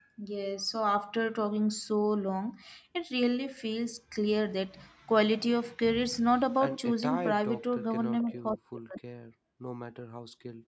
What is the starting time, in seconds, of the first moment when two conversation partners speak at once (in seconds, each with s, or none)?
6.6 s